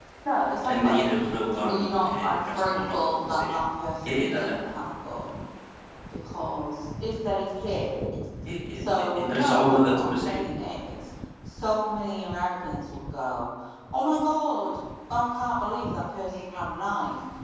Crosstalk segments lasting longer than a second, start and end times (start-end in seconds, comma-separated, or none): 1.6-3.6, 8.7-10.4